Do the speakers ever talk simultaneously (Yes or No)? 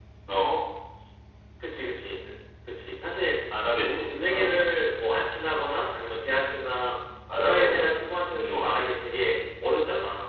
Yes